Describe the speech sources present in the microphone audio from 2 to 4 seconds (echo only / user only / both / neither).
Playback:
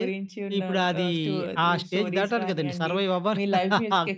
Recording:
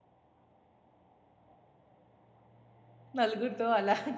user only